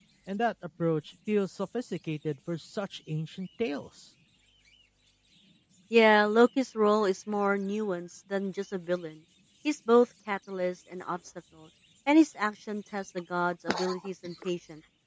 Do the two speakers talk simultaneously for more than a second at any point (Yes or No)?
No